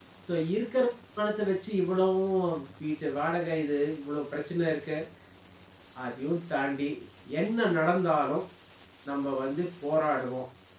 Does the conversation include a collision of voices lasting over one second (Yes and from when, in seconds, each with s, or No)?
No